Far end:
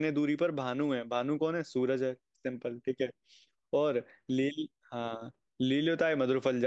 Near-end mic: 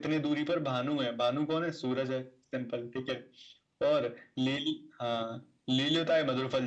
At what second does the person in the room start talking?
none

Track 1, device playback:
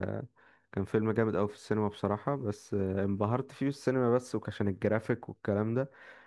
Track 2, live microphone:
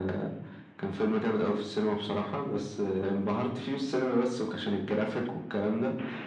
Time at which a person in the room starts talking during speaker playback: none

